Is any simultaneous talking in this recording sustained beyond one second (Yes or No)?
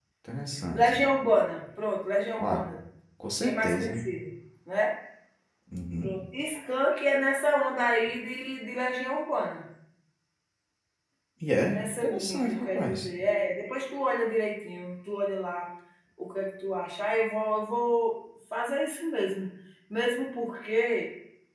Yes